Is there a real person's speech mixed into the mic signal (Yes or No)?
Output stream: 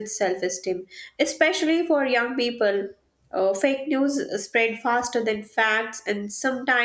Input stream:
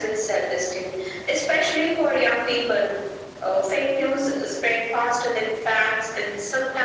No